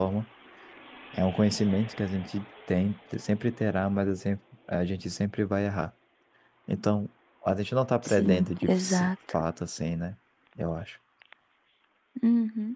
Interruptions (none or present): present